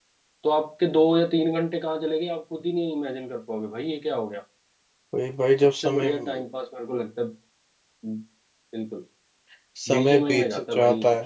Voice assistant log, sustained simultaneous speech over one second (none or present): present